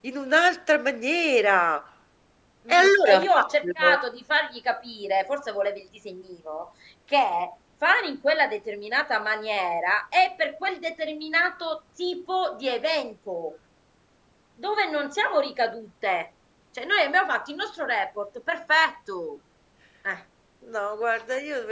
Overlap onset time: 2.7 s

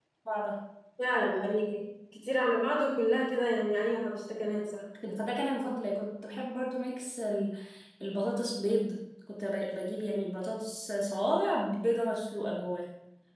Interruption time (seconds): none

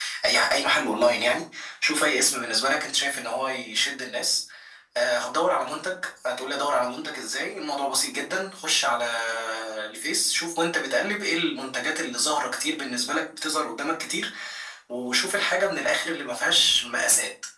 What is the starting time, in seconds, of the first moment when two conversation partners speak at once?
none

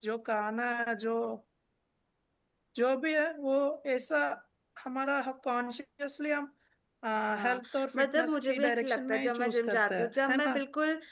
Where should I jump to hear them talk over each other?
7.4 s

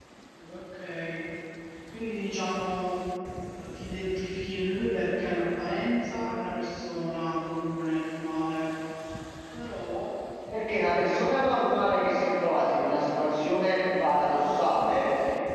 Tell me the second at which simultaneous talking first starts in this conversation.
none

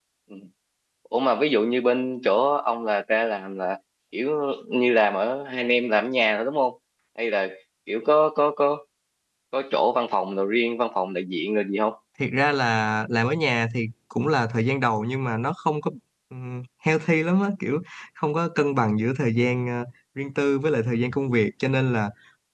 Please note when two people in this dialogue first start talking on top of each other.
none

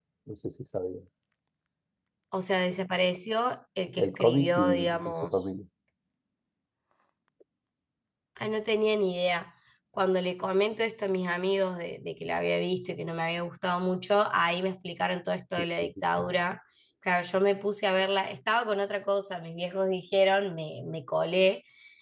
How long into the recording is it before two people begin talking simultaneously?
4.0 s

